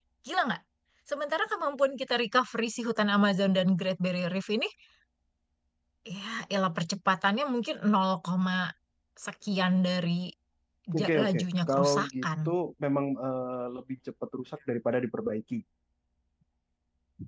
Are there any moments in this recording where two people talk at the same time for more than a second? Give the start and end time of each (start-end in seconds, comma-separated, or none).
11.0-12.3